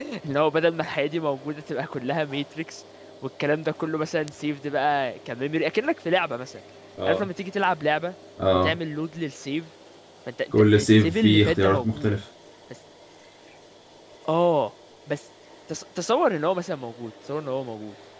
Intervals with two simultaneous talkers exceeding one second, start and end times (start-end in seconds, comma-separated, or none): 10.8-12.1